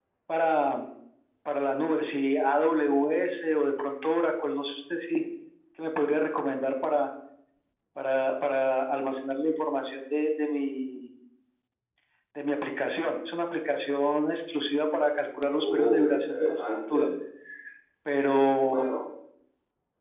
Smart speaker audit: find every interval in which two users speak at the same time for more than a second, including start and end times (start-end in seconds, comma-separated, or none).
15.5-17.1